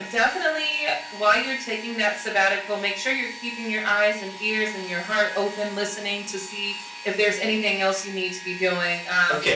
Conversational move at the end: listening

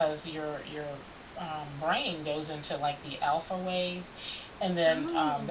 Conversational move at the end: listening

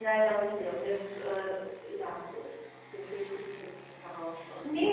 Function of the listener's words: taking over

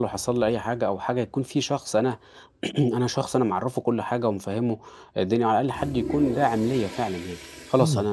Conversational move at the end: taking over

